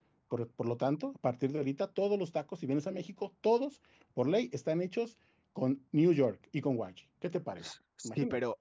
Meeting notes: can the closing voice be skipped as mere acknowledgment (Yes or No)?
No